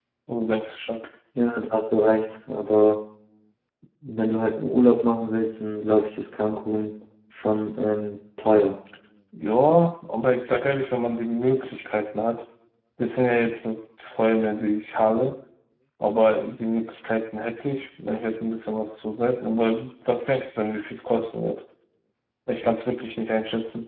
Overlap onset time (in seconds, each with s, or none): none